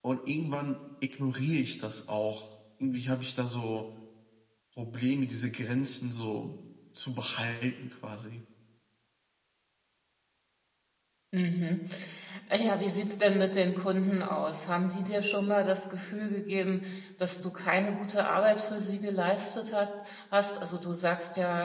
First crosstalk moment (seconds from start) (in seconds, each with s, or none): none